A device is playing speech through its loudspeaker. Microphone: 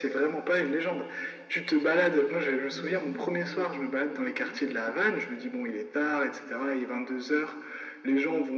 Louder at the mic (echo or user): echo